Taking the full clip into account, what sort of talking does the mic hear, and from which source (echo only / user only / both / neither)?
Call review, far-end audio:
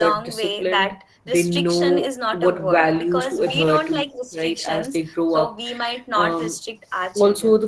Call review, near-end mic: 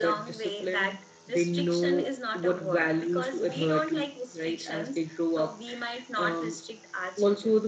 echo only